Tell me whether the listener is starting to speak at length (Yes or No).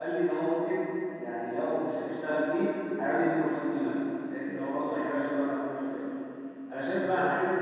No